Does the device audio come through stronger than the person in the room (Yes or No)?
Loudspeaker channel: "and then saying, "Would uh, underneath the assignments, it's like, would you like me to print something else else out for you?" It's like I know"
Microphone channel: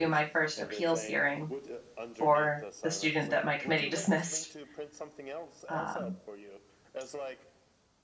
No